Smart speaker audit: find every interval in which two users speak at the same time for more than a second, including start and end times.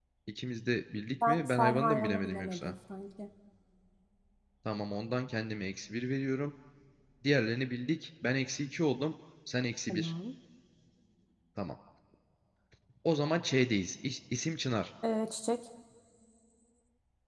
1.3-2.7

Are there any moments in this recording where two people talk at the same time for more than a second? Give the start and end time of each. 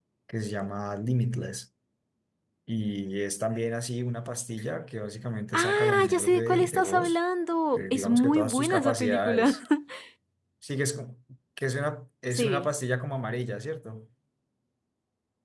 5.5-7.2, 7.8-9.6

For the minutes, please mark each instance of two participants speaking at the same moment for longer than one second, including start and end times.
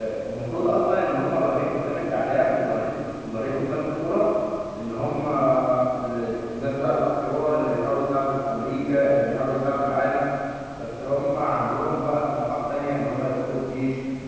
none

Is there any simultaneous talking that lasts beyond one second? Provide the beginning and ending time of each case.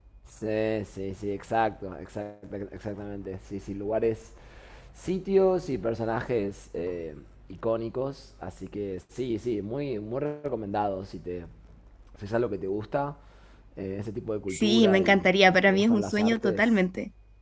14.5-16.6

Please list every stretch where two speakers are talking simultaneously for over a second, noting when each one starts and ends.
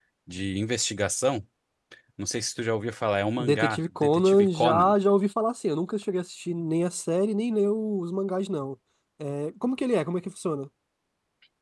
3.4-4.9

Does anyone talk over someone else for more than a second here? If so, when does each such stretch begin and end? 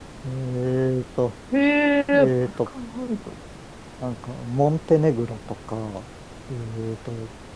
none

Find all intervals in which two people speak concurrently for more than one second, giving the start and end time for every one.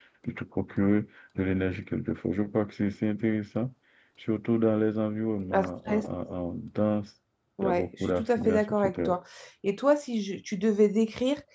7.6-9.1

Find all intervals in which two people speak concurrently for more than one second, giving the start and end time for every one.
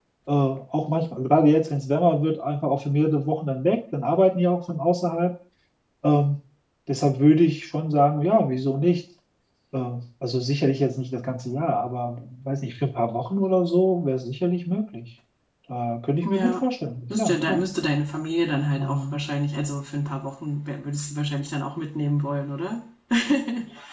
none

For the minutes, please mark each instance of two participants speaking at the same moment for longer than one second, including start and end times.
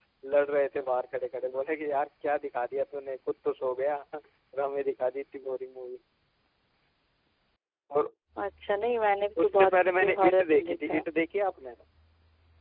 9.4-11.1

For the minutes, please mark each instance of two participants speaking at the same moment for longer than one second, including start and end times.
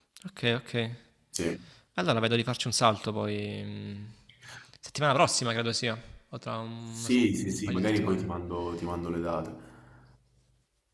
6.9-8.3

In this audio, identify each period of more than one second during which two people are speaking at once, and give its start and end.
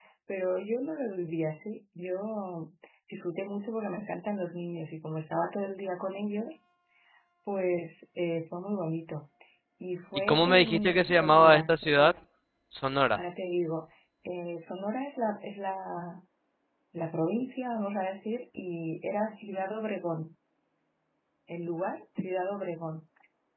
10.3-11.7

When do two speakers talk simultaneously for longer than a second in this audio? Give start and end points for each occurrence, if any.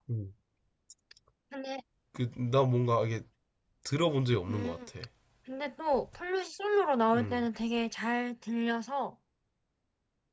none

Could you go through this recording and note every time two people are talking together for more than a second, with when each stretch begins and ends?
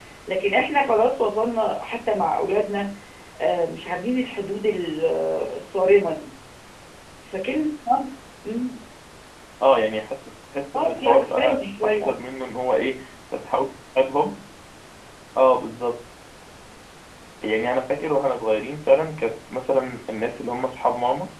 10.8-12.2

